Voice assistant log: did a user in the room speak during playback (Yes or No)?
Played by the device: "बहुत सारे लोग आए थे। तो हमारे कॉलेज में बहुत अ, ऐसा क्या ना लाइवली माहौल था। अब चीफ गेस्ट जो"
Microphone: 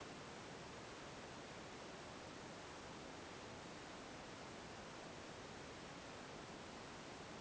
No